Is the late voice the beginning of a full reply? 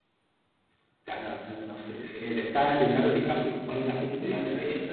Yes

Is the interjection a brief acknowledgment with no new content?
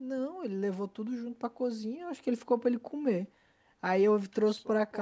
Yes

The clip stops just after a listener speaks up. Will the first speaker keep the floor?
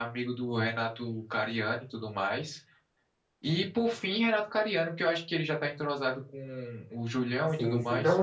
No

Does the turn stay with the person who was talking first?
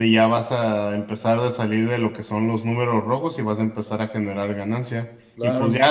Yes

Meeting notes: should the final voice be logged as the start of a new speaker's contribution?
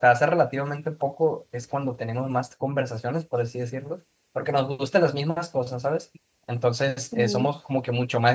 No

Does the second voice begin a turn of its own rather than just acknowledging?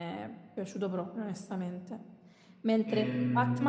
No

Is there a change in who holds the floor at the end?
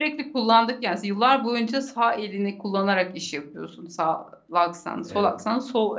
No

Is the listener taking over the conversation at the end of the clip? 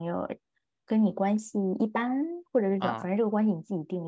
No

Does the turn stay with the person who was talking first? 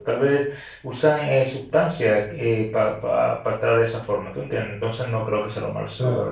Yes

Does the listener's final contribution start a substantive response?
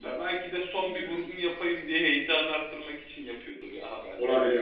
Yes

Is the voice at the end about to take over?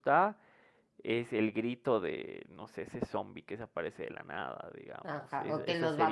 Yes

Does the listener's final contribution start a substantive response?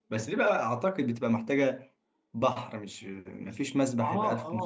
Yes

